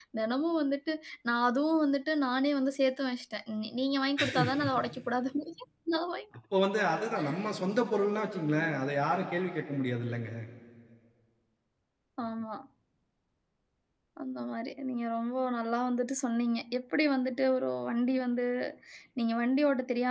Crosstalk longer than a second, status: none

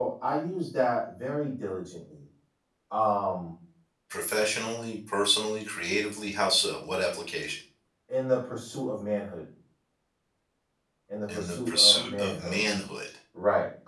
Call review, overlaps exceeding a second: present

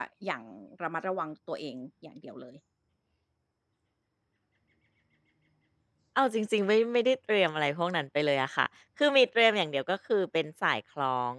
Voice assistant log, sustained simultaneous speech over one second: none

